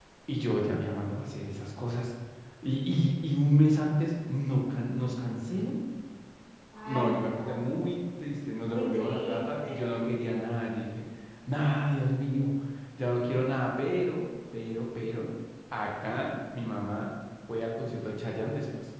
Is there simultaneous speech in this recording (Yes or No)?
Yes